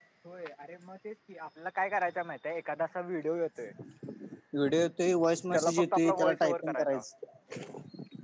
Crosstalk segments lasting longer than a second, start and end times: 5.5-6.7

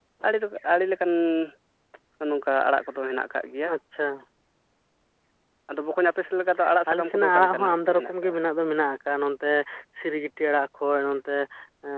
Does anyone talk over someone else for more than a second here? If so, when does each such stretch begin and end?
6.9-8.4

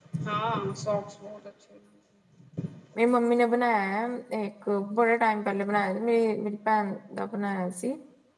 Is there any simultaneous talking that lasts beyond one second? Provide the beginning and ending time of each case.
none

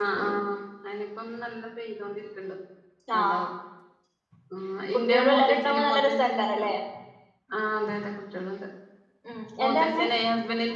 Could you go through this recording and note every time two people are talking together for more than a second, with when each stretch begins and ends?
5.0-6.6

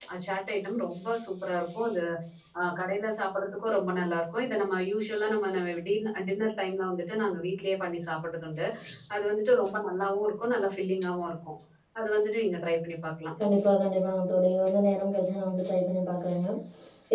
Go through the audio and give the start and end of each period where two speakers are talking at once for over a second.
none

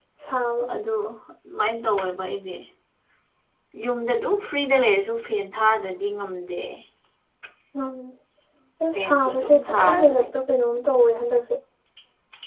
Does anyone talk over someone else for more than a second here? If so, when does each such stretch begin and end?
9.0-10.4

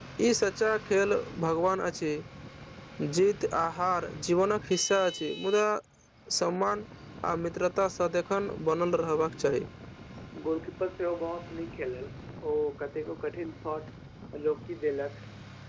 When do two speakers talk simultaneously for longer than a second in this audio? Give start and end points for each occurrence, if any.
none

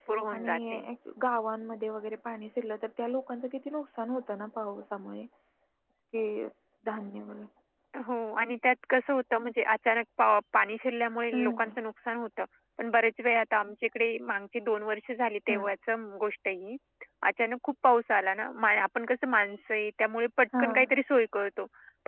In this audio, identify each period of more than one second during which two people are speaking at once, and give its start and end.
none

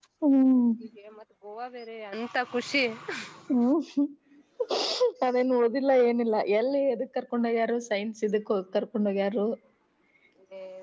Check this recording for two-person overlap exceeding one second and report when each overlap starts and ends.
none

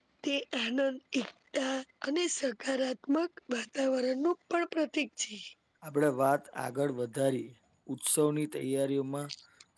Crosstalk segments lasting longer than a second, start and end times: none

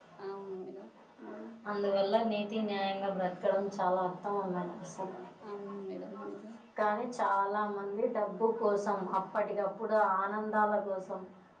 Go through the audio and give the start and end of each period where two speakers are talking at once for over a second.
none

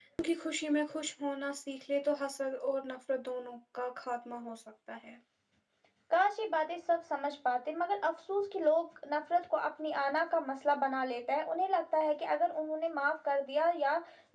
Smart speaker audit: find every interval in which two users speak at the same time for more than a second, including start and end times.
none

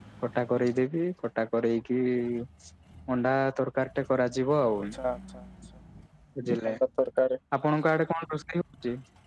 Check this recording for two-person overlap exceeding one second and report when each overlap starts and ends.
none

